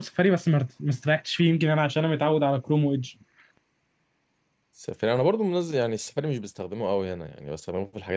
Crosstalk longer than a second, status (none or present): none